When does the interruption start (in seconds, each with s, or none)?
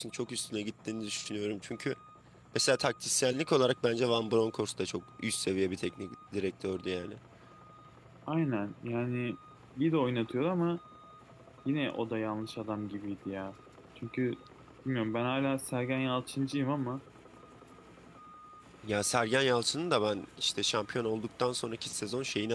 none